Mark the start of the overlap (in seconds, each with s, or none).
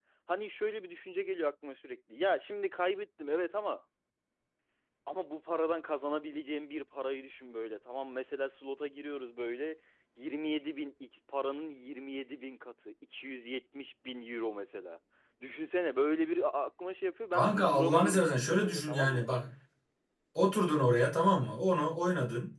17.3 s